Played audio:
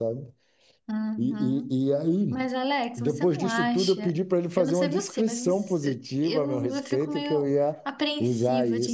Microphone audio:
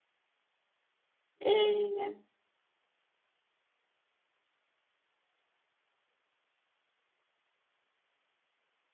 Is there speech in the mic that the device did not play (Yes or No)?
Yes